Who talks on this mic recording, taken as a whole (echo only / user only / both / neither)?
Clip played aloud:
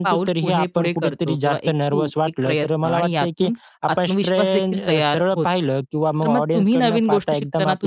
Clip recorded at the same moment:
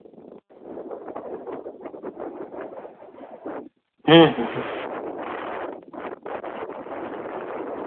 user only